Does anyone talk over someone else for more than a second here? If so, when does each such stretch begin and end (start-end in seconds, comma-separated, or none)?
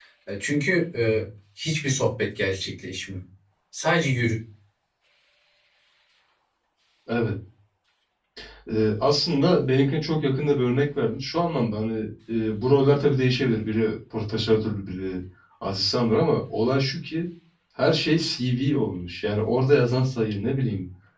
none